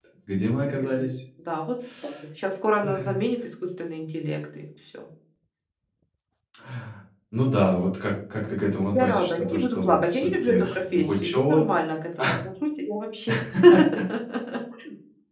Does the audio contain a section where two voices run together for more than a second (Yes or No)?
Yes